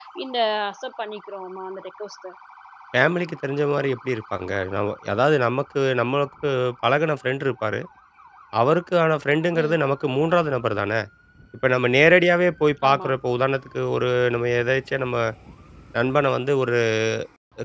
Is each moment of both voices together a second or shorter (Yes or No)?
Yes